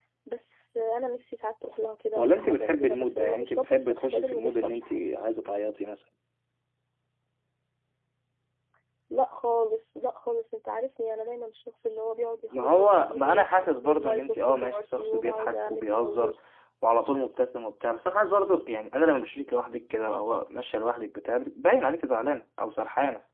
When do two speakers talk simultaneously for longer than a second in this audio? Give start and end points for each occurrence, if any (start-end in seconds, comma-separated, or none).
2.1-5.1, 12.5-16.3